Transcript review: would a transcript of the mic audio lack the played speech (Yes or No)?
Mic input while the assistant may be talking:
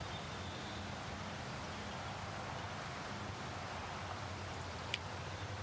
Yes